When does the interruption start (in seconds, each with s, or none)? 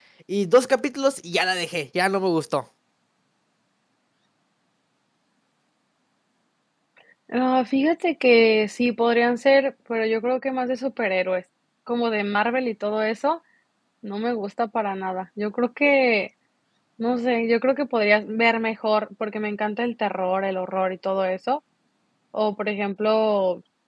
none